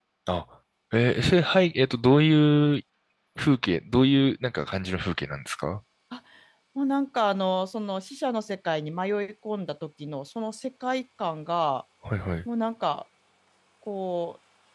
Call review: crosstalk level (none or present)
none